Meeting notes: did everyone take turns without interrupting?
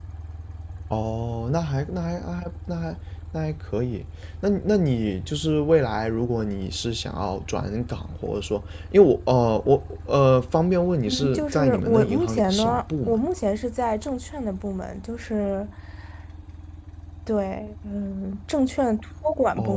No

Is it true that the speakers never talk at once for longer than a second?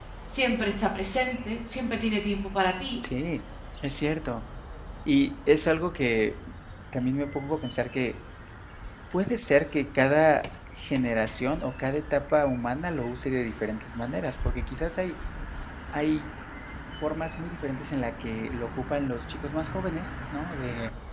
Yes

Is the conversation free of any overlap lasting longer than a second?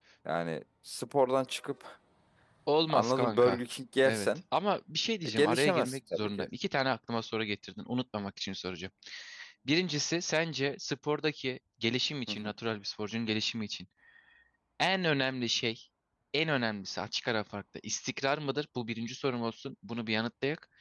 No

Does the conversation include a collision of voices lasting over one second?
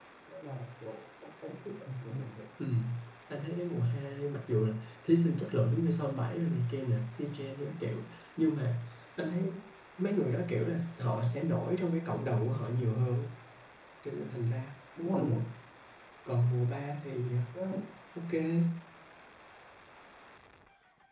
No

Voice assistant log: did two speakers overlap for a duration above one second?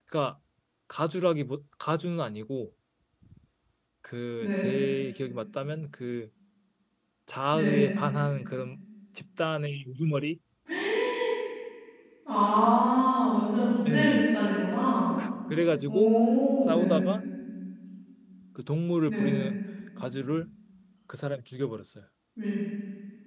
No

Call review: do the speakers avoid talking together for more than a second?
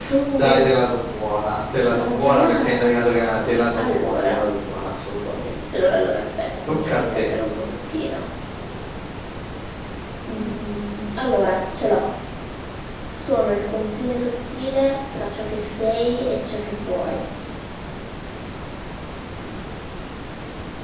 No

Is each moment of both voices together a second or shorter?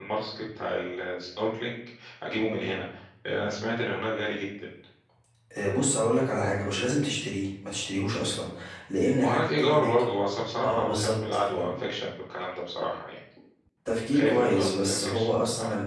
No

